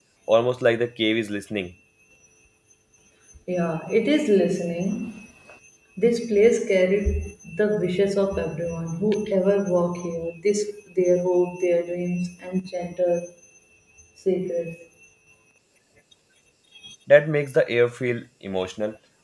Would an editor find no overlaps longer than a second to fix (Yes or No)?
Yes